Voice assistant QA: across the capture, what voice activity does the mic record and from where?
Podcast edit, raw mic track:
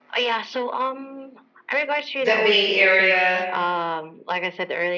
both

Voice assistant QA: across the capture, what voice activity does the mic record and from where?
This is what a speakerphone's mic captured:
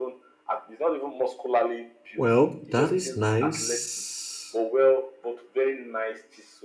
both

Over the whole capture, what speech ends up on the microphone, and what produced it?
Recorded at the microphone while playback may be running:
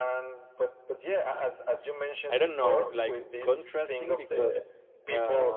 both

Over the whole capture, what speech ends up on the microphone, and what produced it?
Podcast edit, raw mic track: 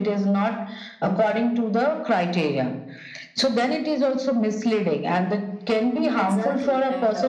both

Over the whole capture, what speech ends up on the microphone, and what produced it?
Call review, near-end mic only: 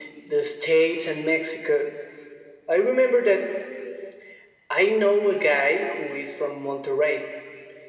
echo only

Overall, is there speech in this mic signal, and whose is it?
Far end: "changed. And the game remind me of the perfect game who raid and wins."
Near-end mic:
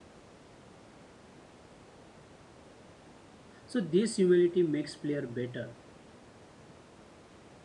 user only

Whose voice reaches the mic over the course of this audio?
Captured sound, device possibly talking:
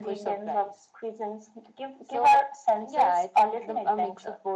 echo only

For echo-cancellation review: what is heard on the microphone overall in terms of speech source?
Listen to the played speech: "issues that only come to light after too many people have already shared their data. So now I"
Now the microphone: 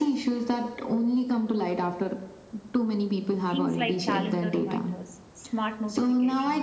both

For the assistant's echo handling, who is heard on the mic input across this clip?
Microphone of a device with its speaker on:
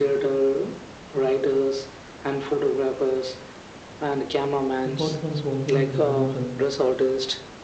both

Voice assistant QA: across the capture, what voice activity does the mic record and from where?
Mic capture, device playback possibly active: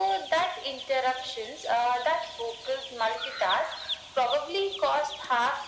echo only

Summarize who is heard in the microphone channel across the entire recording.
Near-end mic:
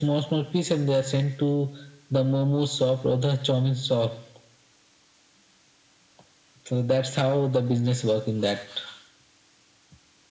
echo only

